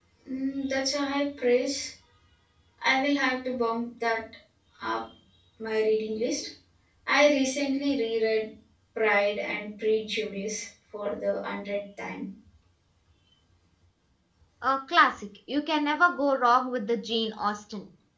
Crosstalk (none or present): none